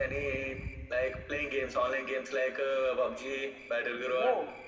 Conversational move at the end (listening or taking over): listening